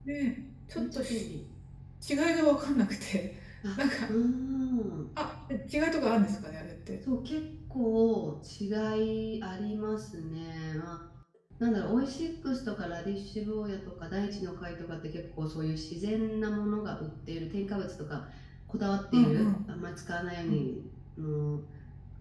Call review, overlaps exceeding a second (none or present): none